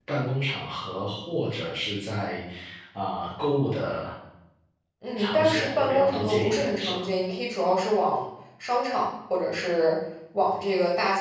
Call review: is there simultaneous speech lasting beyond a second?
Yes, from 5.2 s

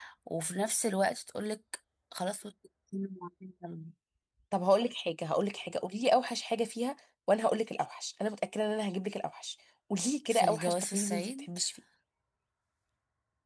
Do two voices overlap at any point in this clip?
Yes, from 10.2 s

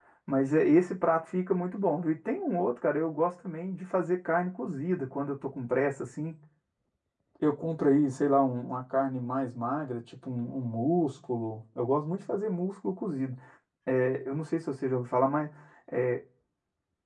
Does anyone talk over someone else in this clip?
No

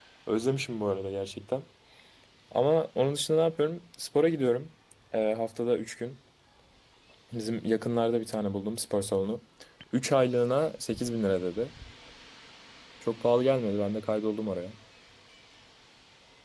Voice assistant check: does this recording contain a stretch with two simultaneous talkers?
No

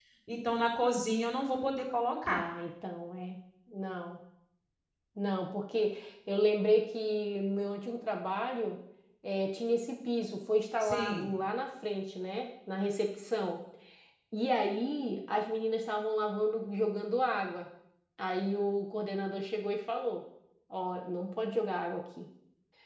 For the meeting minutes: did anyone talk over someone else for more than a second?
No

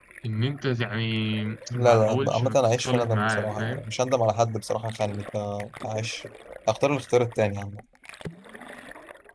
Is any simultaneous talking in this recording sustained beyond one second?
Yes, from 1.7 s

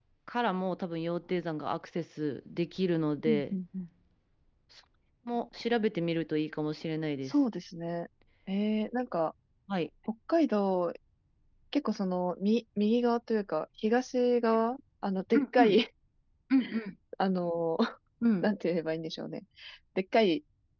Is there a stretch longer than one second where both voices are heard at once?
No

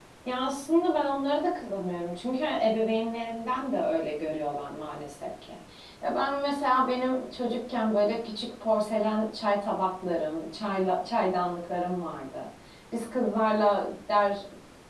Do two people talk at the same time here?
No

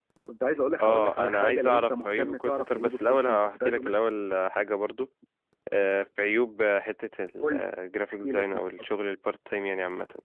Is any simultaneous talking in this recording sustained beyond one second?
Yes, from 0.8 s

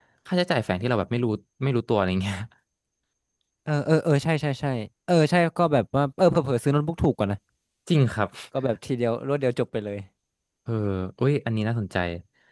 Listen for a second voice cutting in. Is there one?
No

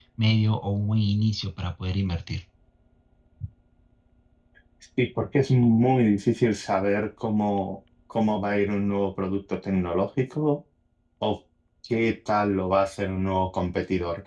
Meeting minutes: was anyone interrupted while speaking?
No

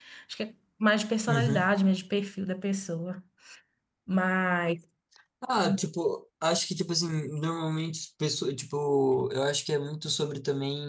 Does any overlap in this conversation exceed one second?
No

